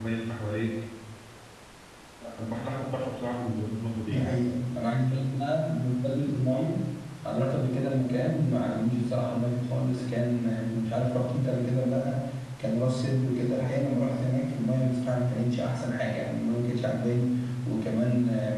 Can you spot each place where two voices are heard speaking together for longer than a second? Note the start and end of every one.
none

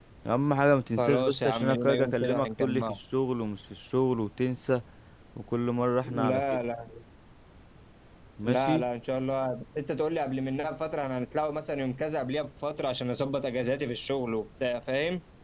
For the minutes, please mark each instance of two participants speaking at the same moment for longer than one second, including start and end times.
1.0-3.0

